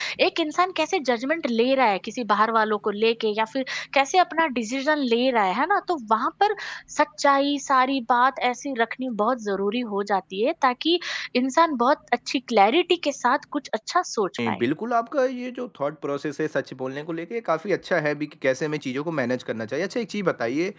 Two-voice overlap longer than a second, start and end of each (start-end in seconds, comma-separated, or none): none